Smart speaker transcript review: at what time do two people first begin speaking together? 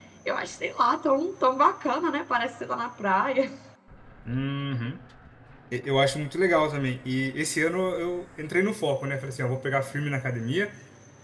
none

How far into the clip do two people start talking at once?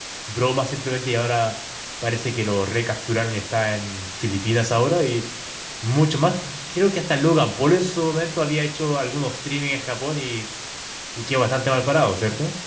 none

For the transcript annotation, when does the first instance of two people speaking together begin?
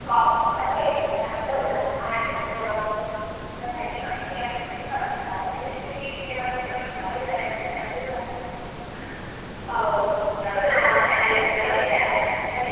10.5 s

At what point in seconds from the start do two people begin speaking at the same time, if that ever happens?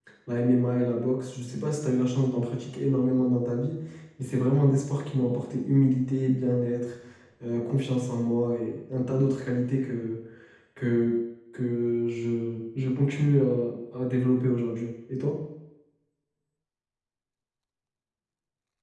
none

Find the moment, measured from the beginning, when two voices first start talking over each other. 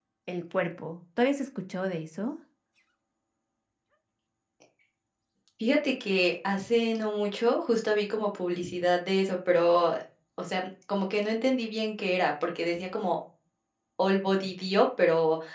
none

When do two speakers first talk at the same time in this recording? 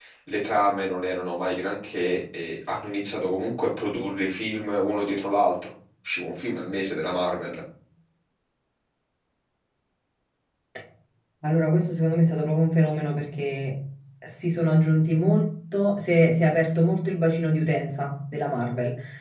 none

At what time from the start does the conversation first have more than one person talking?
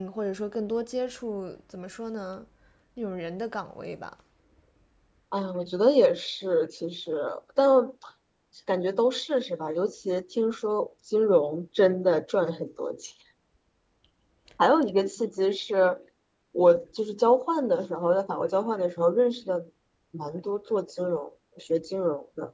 none

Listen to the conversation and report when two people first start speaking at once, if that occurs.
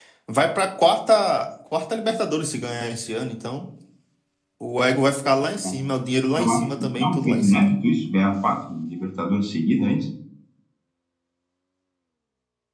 6.4 s

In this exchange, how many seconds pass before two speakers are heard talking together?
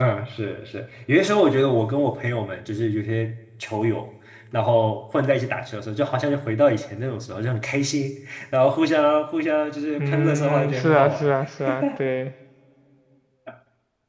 10.0 s

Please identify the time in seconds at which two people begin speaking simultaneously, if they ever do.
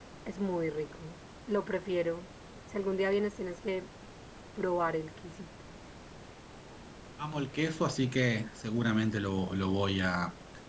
none

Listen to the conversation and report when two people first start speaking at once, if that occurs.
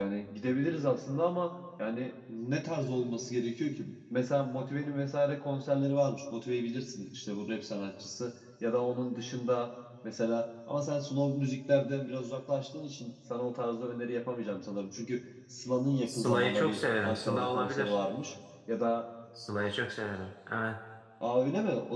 16.1 s

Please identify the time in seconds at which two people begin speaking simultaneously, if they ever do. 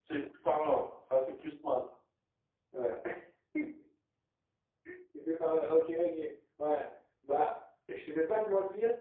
none

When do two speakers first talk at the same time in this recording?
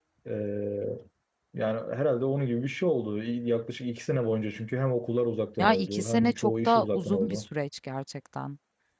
5.6 s

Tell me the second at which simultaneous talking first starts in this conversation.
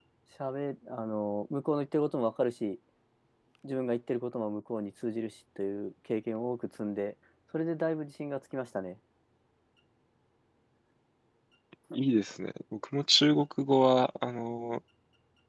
none

